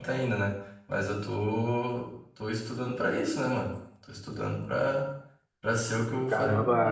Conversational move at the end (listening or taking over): taking over